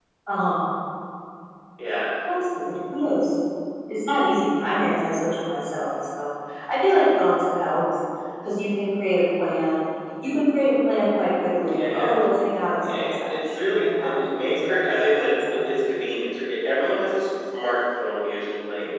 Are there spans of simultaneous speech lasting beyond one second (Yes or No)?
Yes